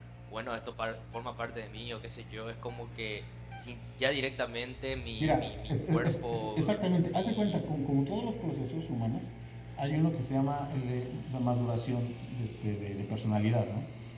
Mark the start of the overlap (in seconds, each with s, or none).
5.2 s